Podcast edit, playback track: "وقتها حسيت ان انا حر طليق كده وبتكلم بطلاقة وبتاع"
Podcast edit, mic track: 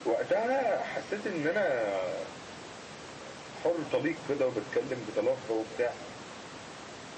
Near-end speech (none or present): none